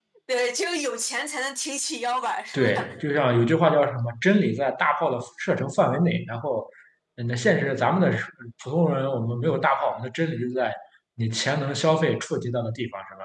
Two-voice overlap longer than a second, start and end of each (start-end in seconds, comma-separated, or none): none